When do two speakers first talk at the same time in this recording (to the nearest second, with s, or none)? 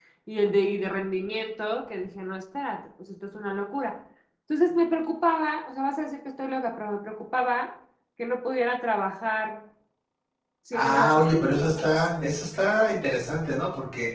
11 s